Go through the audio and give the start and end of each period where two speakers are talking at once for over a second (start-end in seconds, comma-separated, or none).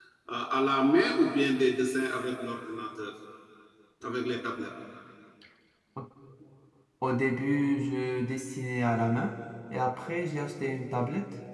none